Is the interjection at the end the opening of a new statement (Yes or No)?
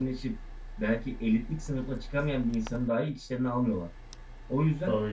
No